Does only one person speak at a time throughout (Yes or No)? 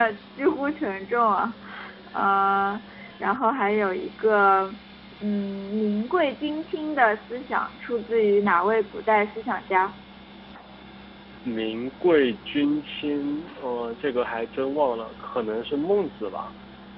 Yes